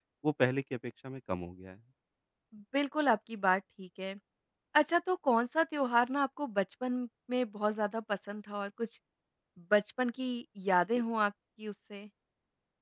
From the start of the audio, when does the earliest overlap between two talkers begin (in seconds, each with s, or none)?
none